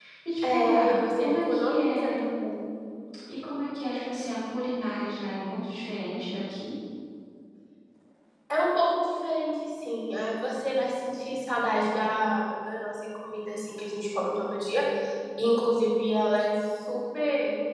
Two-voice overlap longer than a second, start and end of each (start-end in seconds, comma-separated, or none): 0.5-2.2